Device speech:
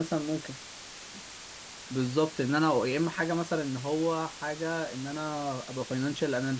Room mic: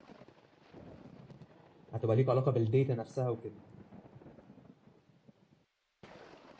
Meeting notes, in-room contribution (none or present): present